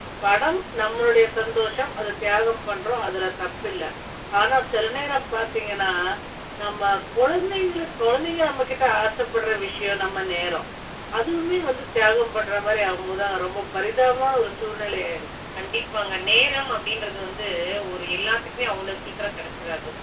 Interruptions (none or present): none